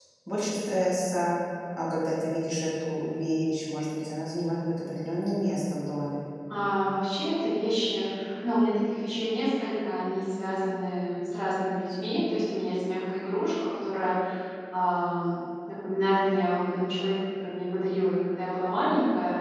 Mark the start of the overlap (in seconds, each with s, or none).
none